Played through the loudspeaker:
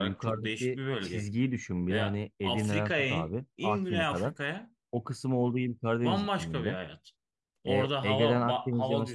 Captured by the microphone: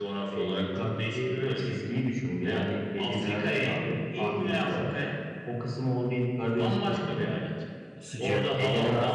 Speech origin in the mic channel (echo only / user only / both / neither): both